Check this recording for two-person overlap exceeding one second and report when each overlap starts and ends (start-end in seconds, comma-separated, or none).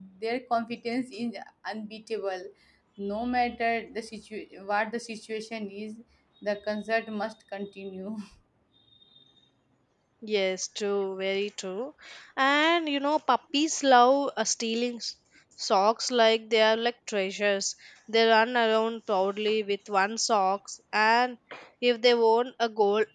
none